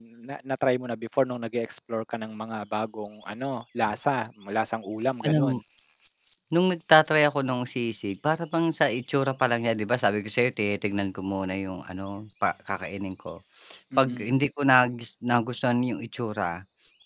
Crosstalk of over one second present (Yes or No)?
No